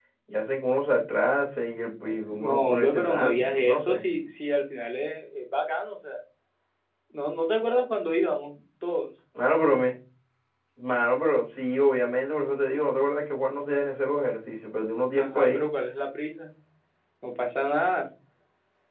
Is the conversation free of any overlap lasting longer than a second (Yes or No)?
No